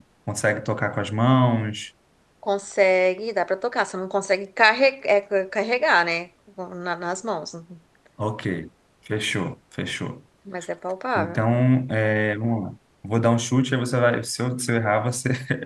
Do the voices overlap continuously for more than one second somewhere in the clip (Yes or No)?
No